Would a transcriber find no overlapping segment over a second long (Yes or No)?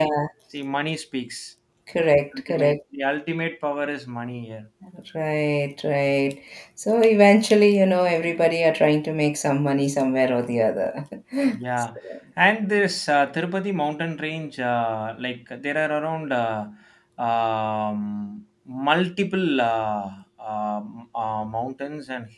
Yes